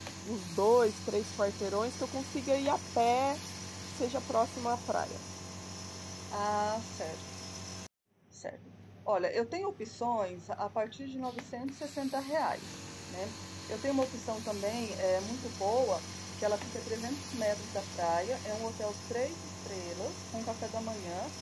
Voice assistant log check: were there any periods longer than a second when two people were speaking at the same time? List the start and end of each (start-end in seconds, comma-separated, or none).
none